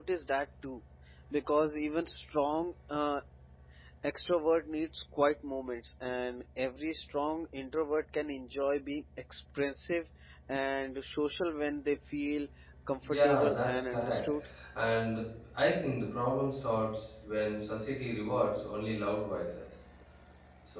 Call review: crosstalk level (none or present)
present